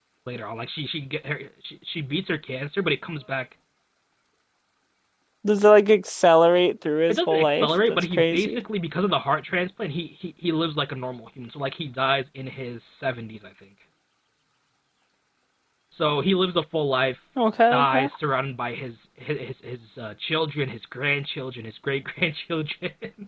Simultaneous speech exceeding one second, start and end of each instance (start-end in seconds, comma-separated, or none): 7.1-8.6